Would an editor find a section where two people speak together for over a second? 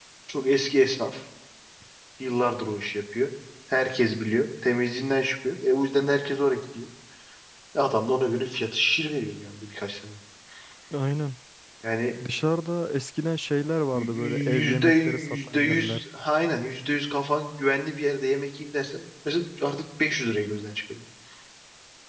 Yes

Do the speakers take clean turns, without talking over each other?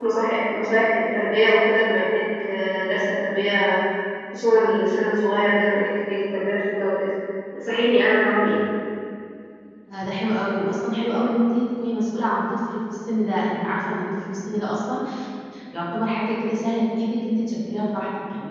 Yes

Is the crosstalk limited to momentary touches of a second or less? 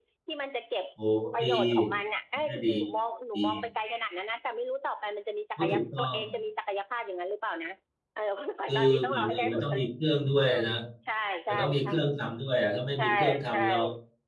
No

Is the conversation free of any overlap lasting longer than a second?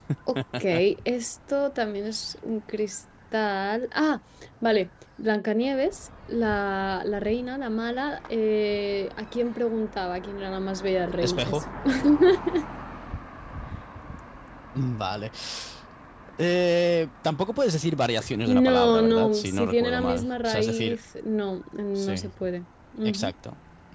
No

